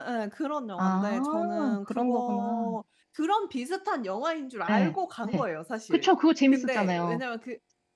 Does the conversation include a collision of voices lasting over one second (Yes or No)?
Yes